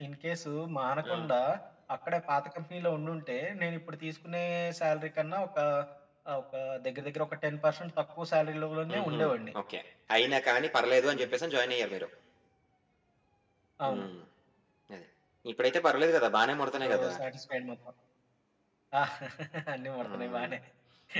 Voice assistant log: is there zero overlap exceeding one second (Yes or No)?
Yes